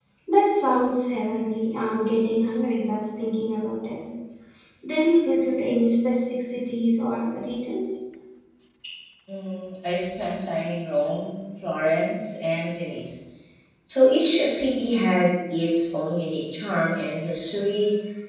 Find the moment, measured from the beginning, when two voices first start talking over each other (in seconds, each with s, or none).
none